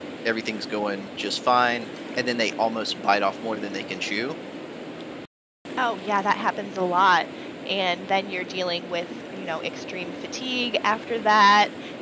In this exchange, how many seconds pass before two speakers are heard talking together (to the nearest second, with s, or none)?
none